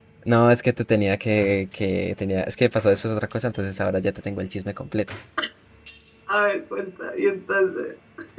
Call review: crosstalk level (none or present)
none